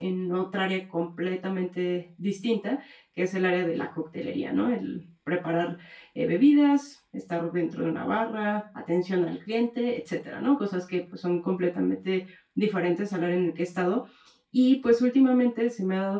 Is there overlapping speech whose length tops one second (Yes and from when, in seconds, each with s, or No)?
No